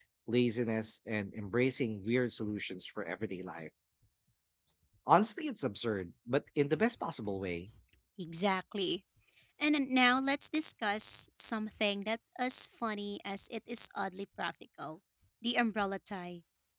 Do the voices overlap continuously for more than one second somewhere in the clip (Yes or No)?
No